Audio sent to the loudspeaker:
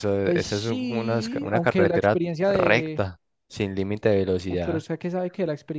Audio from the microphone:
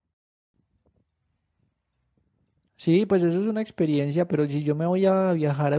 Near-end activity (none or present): present